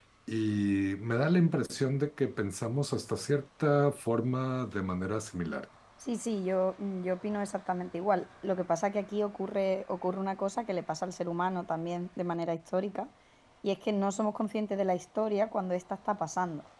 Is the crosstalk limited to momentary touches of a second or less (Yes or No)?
Yes